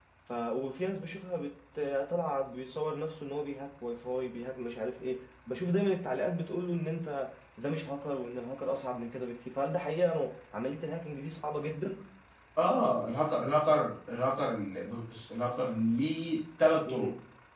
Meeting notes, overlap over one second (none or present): none